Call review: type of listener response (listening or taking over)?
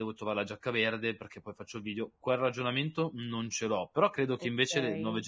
listening